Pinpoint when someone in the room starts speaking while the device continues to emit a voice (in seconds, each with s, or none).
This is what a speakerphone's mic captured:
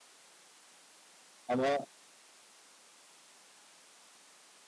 1.5 s